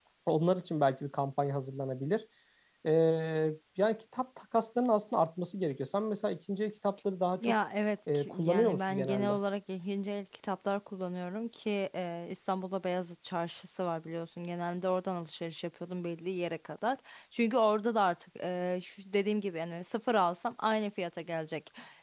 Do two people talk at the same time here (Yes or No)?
Yes